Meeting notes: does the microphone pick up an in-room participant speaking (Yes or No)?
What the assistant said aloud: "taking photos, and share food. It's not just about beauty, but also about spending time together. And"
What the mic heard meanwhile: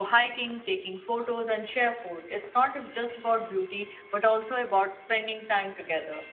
No